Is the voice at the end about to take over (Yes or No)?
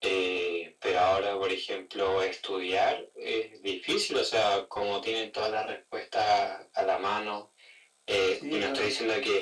No